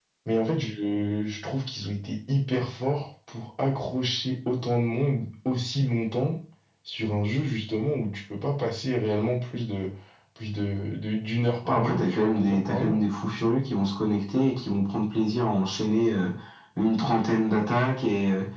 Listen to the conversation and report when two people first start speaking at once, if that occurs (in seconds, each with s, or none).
11.7 s